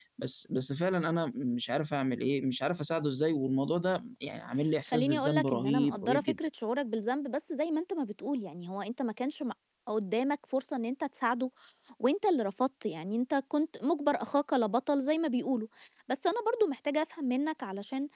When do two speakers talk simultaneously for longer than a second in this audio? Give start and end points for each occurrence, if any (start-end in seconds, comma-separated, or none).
4.8-6.4